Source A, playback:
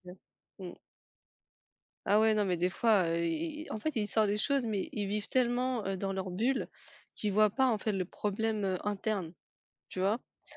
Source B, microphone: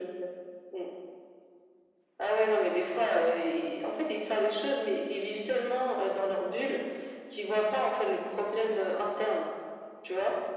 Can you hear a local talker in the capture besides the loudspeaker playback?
No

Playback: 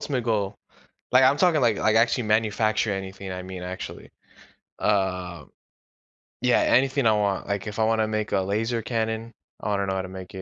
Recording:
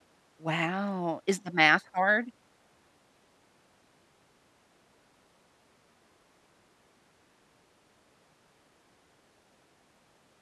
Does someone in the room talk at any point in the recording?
Yes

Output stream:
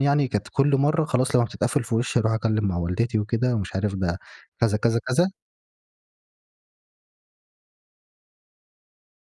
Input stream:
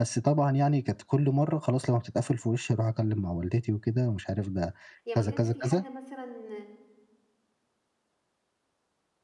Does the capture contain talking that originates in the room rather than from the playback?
Yes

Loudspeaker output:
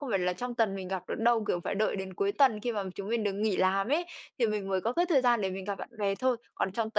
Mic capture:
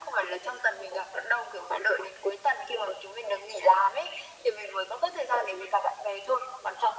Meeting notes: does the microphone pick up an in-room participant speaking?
No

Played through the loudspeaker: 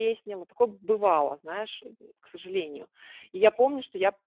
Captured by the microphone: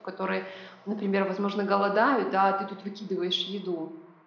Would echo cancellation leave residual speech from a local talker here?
Yes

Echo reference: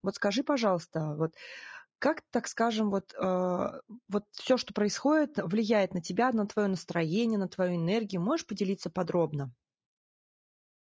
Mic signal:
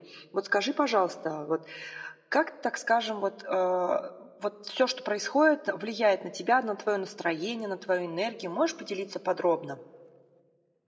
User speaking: No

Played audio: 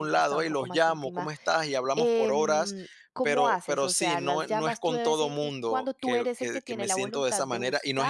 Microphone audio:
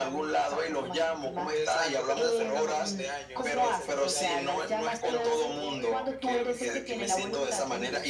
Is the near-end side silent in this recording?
No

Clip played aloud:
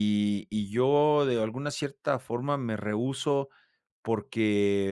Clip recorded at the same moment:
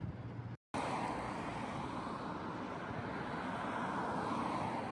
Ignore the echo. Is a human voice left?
No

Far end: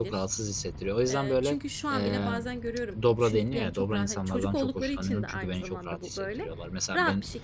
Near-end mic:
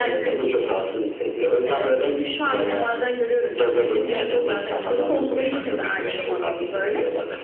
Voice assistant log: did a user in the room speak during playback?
No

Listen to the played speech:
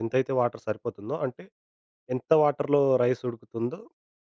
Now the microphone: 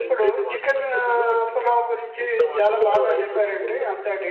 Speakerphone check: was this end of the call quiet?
No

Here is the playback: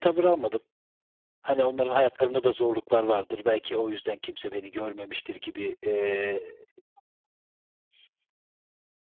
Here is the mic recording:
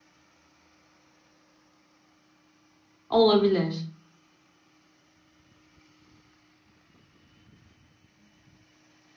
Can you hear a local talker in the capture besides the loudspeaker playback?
Yes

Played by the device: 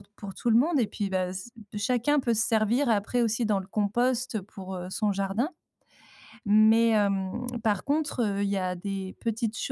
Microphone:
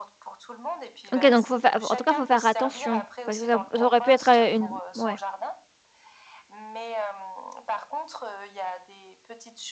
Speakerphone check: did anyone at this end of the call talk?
Yes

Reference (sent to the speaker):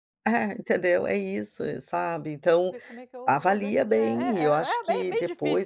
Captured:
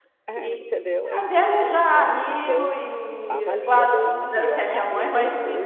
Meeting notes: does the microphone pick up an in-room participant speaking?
Yes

